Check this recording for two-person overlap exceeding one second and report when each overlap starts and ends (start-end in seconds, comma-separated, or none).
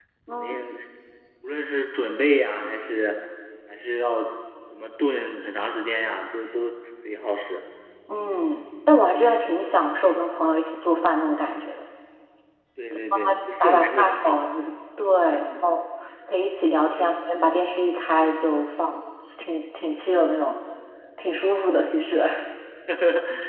12.9-14.6